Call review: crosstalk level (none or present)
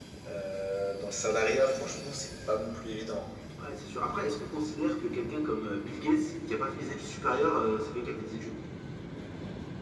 none